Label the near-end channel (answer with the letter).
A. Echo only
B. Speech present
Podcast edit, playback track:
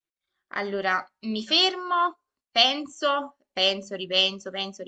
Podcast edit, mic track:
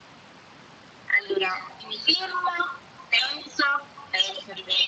A